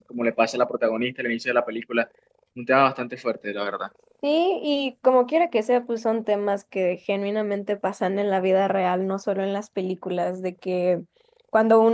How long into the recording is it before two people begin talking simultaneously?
none

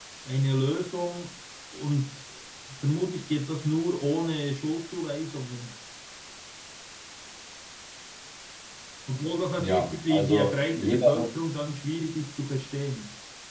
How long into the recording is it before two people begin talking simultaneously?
9.6 s

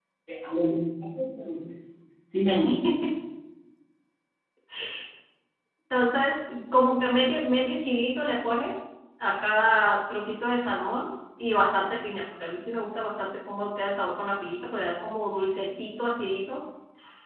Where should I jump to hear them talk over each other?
none

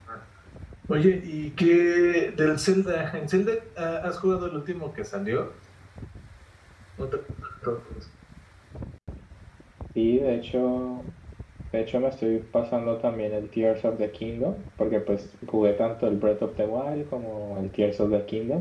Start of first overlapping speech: none

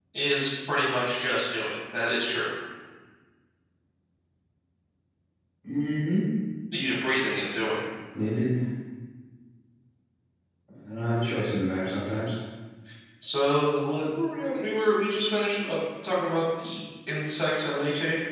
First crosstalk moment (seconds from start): none

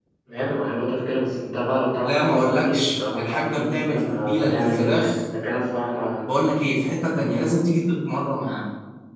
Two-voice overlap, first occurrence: 2.0 s

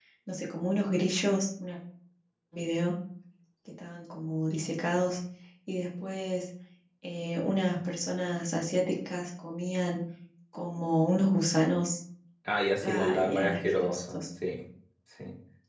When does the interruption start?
12.8 s

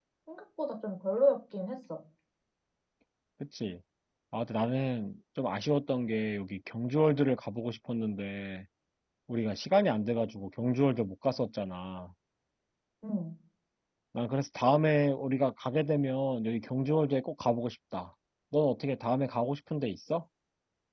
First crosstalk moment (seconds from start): none

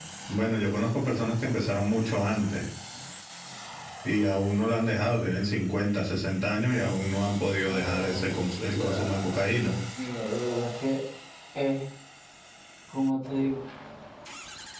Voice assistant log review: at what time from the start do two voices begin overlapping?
7.6 s

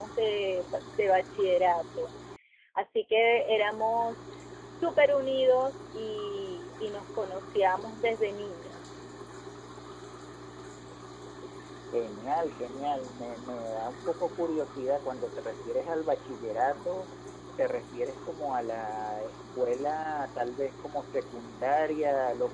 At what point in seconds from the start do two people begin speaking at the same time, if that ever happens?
none

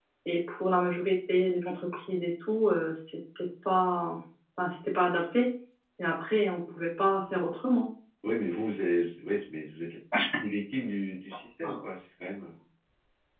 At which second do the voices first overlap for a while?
none

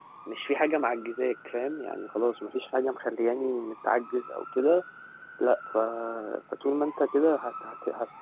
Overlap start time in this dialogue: none

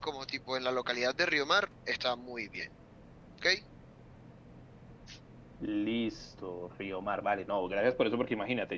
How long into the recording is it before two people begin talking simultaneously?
none

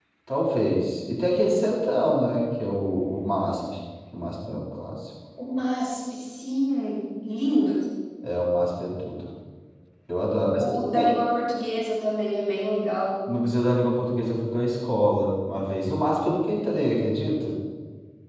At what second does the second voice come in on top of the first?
none

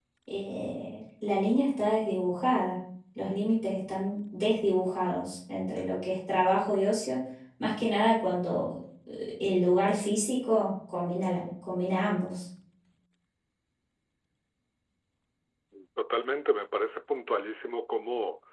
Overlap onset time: none

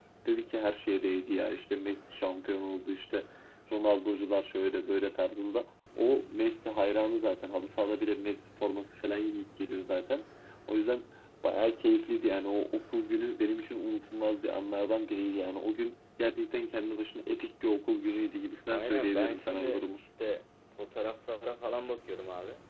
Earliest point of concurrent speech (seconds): 18.7 s

